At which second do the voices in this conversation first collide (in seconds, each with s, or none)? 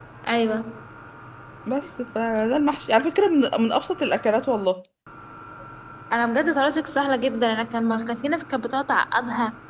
none